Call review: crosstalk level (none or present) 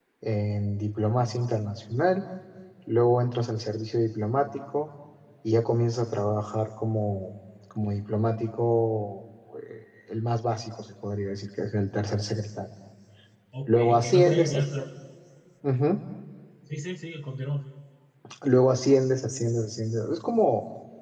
present